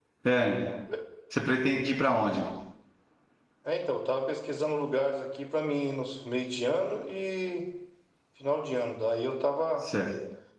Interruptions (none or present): none